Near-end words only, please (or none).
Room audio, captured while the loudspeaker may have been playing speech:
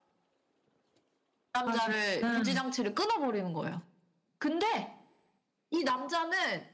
좋아하시구나.